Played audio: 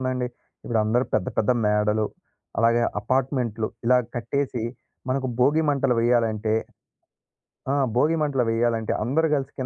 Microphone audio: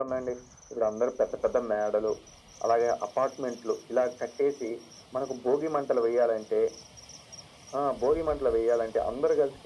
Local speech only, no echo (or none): none